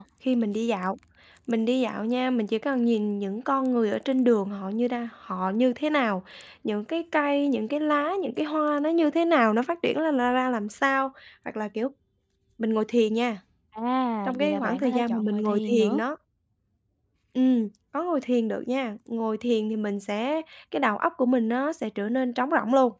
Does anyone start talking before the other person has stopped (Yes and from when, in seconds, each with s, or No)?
Yes, from 14.2 s